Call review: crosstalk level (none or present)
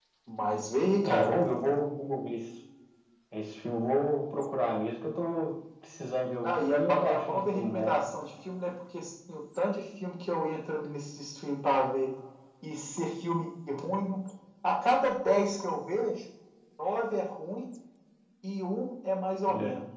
present